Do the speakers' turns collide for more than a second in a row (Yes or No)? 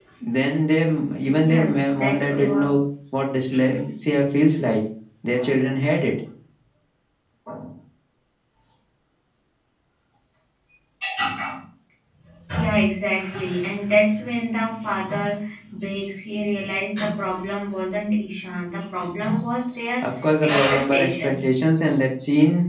Yes